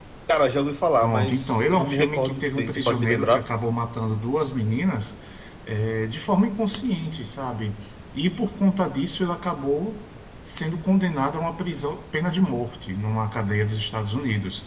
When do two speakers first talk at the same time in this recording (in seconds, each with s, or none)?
1.0 s